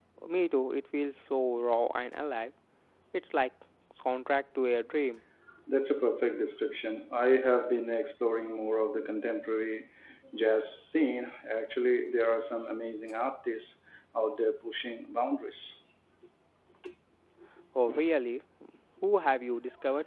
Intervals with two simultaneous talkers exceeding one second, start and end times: none

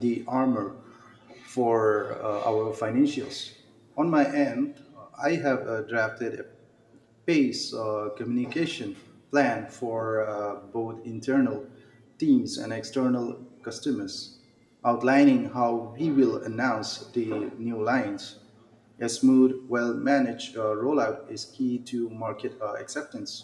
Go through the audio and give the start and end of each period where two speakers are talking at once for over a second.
none

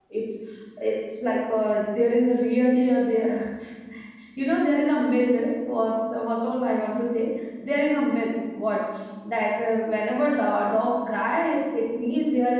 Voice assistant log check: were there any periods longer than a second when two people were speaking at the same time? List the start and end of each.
none

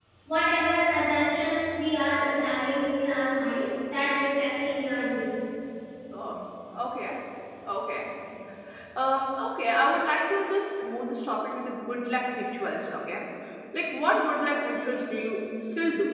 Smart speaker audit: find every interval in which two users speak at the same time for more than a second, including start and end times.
none

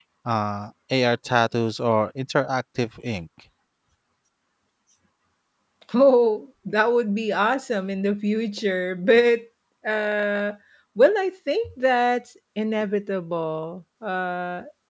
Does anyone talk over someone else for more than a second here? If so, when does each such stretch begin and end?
none

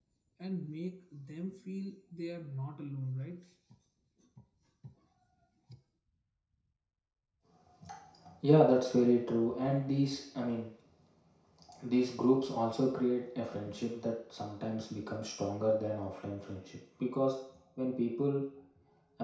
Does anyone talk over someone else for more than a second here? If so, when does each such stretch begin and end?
none

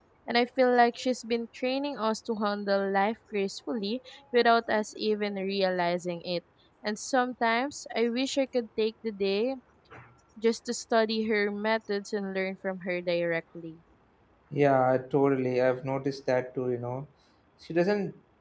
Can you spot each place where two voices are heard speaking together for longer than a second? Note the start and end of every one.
none

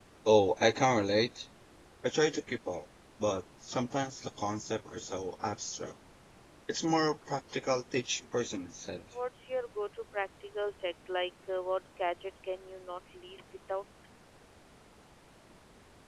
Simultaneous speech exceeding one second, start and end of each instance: none

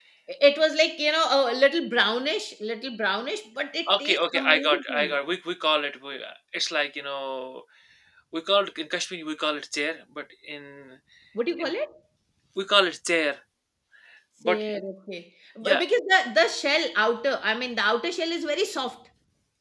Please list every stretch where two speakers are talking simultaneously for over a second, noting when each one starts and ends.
3.9-5.1

